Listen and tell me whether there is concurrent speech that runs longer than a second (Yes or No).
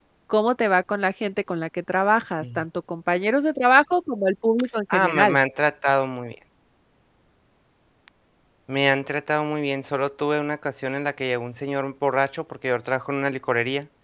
No